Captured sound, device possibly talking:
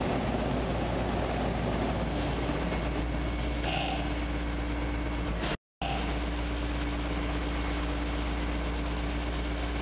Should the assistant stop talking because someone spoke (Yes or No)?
No